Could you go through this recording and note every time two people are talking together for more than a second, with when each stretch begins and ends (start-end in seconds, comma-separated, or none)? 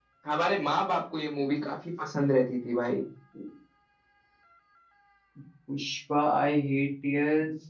none